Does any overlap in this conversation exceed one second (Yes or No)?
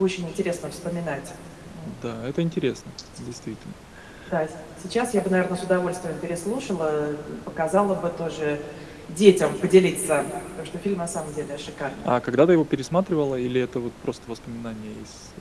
No